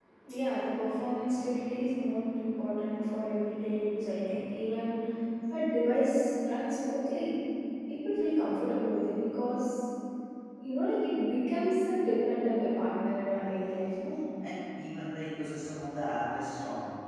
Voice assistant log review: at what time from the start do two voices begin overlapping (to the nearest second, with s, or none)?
none